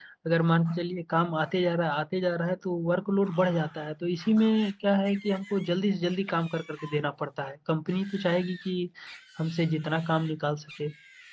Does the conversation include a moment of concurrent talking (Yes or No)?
No